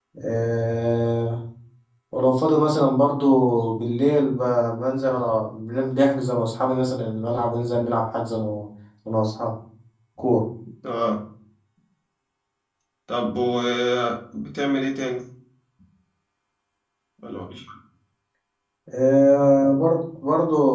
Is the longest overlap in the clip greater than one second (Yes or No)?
No